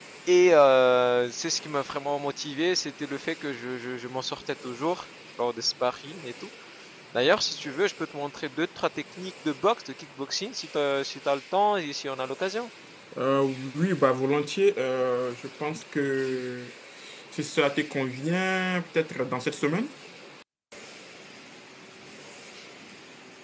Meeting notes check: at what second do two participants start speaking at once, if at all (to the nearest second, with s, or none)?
none